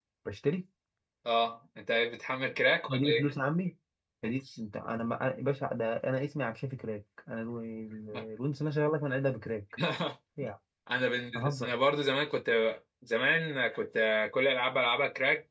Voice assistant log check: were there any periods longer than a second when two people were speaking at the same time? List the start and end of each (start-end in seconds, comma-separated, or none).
none